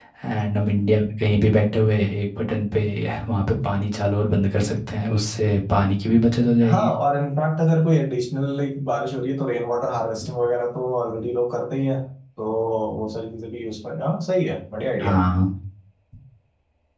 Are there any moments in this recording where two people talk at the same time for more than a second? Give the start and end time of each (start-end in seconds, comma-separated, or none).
none